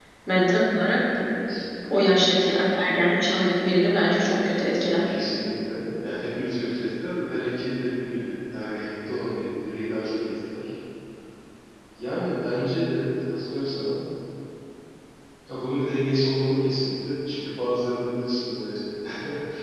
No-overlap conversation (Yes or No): Yes